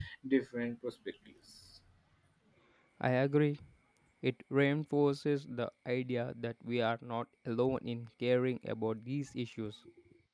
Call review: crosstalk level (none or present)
none